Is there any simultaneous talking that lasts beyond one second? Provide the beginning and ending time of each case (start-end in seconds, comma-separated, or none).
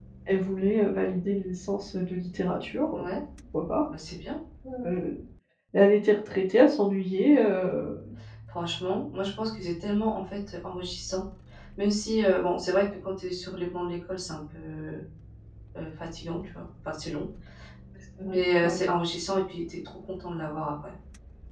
none